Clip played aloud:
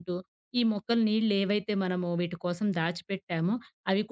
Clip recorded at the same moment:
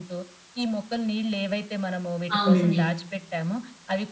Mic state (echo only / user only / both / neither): both